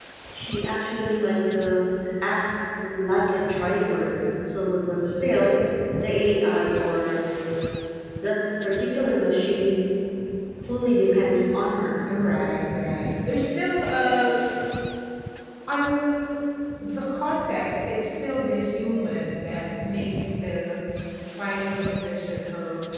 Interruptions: none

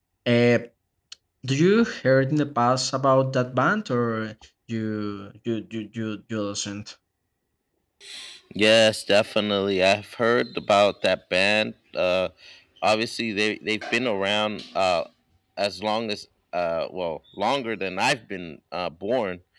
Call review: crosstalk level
none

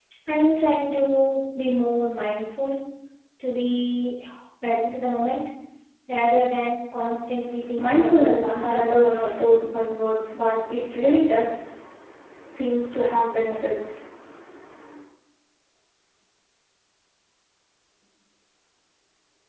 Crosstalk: present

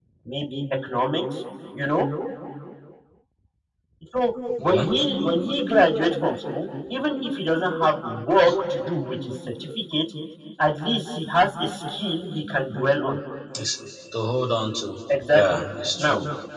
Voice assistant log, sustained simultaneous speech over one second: none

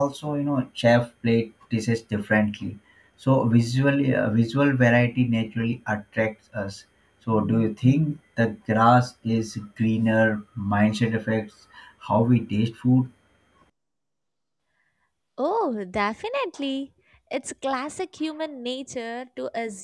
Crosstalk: none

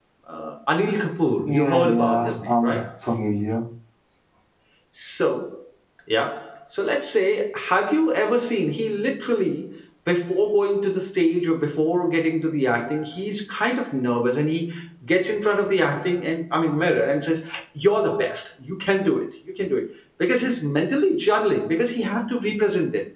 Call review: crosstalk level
present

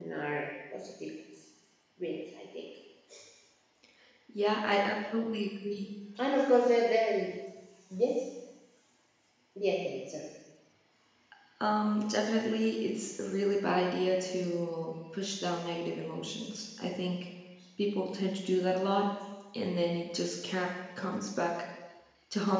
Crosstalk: none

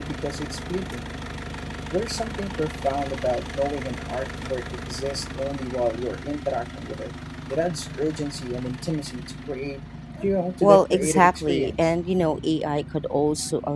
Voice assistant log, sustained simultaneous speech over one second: present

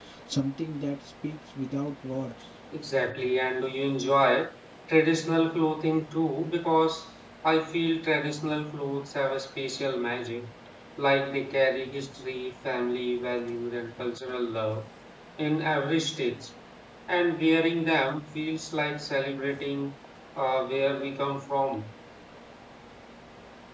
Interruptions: none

